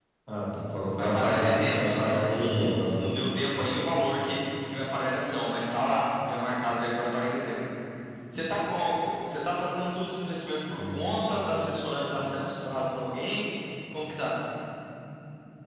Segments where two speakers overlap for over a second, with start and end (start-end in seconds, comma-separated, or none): 1.0-3.1